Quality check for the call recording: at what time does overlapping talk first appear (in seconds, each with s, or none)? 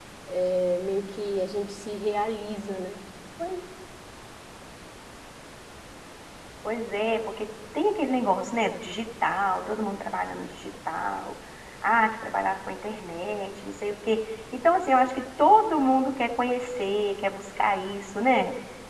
none